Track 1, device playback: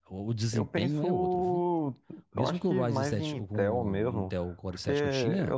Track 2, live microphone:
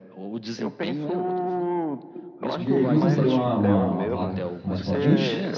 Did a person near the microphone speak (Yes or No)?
Yes